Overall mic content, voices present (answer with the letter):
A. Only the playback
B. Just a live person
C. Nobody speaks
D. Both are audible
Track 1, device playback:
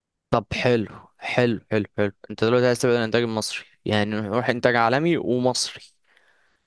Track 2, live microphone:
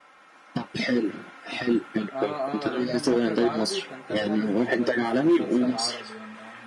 D